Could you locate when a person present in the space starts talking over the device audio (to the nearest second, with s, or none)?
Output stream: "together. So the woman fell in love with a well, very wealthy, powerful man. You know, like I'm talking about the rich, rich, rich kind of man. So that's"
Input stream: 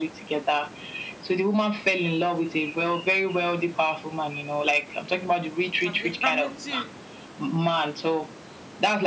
6 s